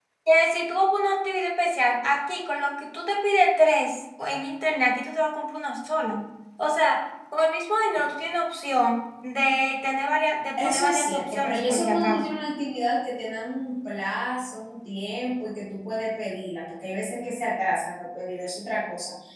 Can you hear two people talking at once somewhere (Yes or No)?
Yes